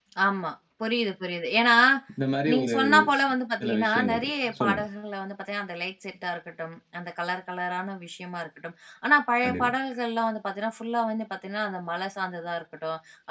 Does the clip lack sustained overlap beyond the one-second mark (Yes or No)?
No